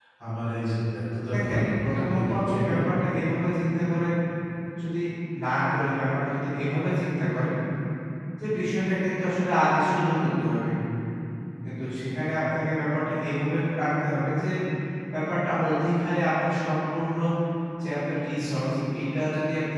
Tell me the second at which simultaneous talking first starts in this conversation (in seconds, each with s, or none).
1.3 s